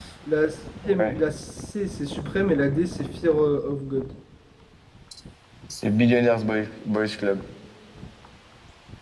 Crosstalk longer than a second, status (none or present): none